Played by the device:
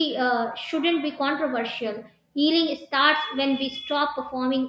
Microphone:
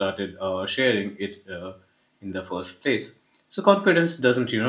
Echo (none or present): none